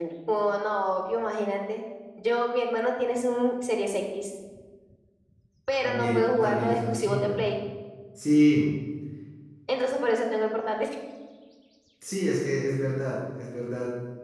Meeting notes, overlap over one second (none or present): present